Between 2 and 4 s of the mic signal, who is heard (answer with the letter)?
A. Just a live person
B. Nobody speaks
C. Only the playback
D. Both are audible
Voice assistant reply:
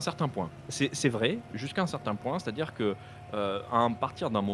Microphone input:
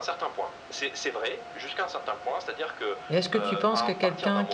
D